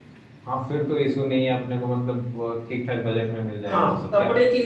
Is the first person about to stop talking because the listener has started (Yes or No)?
Yes